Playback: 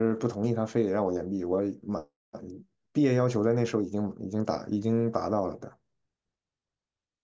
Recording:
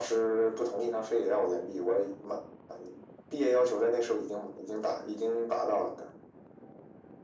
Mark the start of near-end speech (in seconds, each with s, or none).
none